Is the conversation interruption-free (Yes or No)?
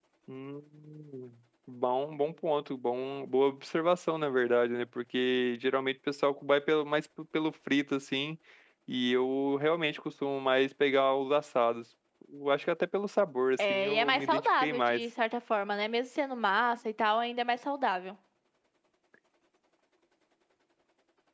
No